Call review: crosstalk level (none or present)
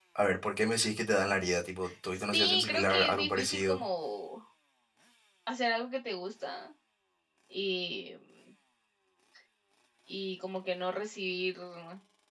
present